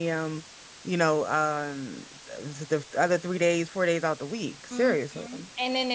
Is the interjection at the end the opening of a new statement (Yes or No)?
Yes